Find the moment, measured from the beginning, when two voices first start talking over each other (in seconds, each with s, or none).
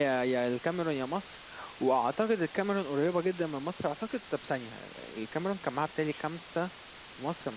none